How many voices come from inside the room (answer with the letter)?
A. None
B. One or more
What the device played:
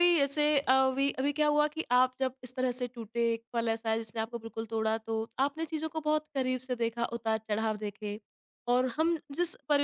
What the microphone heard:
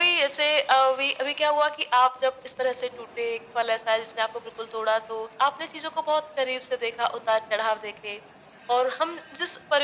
A